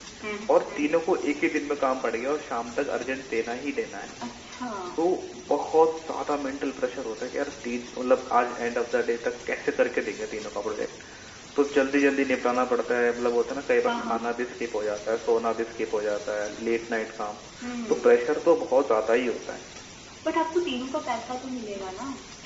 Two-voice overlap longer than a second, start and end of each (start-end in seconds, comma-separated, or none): none